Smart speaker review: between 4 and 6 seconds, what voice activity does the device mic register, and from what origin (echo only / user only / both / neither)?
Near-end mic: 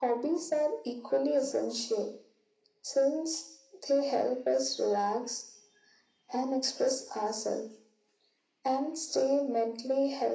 echo only